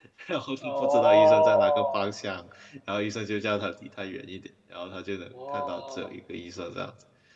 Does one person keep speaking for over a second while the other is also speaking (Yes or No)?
Yes